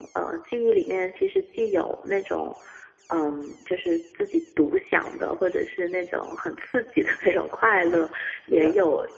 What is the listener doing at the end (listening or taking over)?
listening